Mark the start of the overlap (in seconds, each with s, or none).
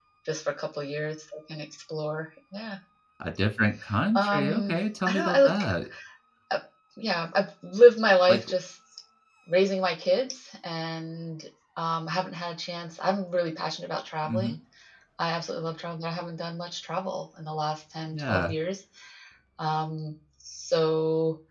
4.2 s